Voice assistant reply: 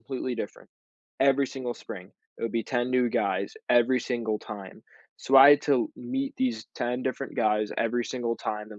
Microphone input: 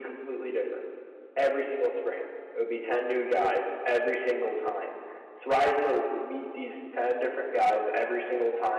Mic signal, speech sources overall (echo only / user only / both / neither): echo only